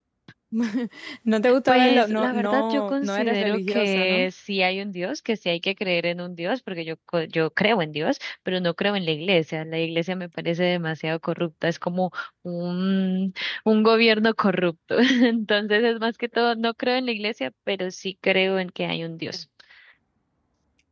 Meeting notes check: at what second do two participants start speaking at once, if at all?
2 s

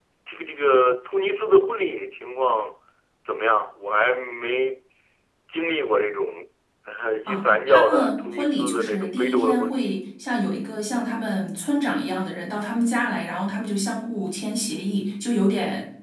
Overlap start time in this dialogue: 7 s

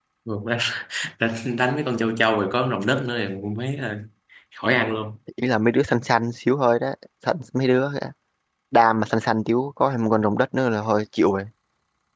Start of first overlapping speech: none

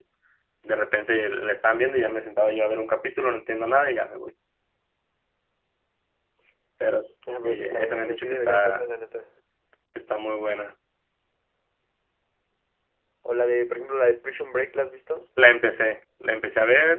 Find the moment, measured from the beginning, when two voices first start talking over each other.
7 s

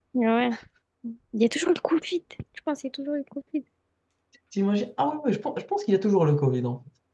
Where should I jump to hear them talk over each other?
none

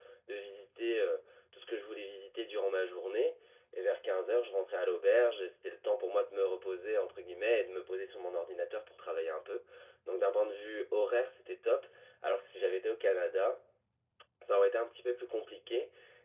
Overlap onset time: none

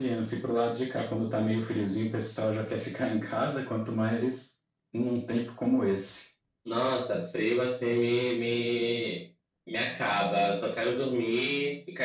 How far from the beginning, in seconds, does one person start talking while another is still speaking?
none

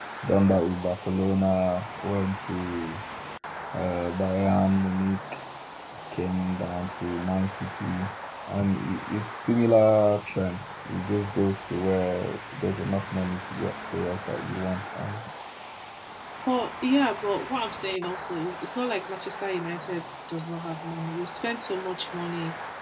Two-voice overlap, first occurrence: none

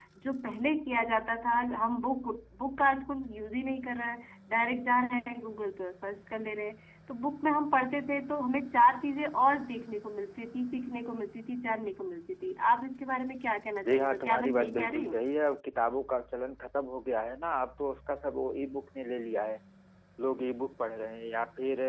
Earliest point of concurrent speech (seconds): 14 s

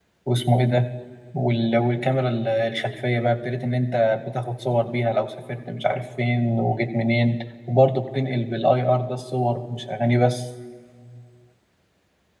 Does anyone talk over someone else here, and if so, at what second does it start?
none

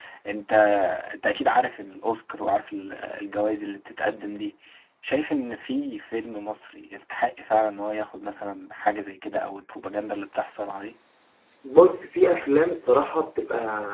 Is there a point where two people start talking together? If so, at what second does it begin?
none

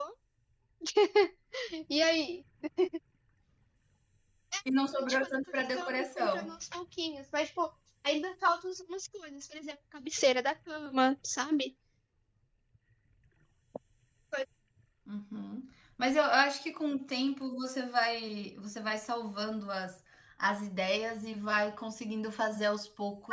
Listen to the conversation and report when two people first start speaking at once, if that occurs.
5 s

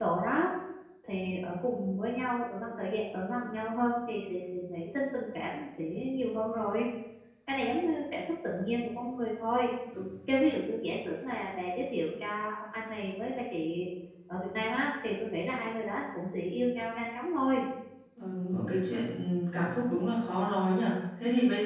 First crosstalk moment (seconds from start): none

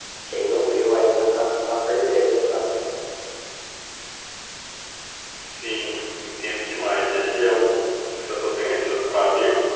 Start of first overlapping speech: none

